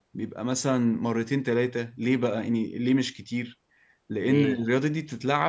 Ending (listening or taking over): listening